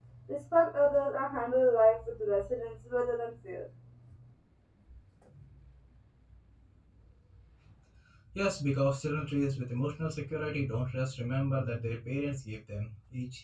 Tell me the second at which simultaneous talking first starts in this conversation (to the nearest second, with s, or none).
none